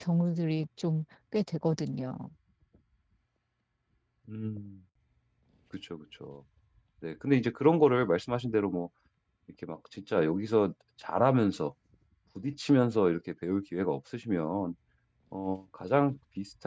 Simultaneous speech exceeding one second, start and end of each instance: none

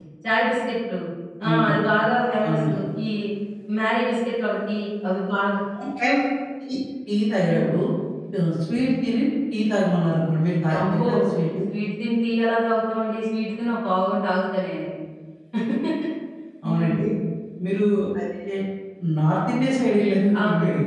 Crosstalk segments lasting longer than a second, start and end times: none

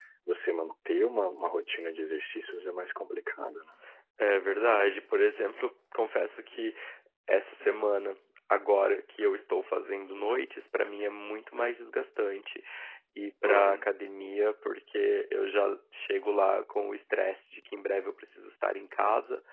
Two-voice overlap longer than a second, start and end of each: none

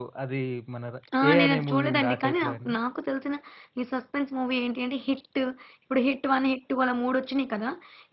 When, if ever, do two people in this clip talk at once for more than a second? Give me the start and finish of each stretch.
1.3-2.8

